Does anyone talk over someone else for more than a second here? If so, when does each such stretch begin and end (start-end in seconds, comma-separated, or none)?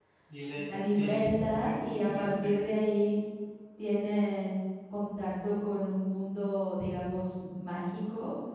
0.6-2.6